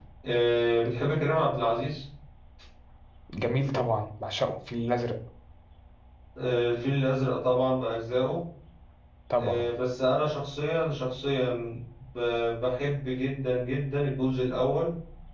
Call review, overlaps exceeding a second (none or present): none